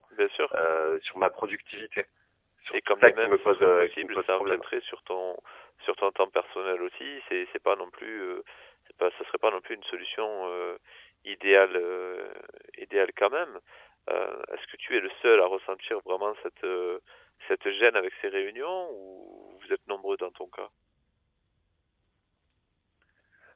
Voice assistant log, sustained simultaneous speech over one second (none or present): present